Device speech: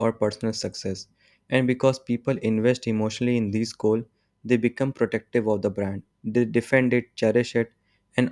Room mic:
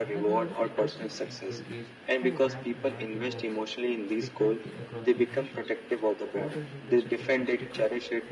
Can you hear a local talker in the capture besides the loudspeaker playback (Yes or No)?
Yes